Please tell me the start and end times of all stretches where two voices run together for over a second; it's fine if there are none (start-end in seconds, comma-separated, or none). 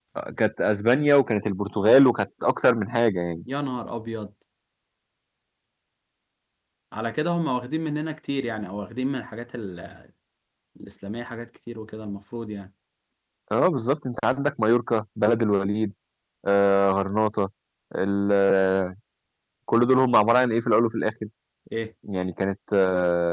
none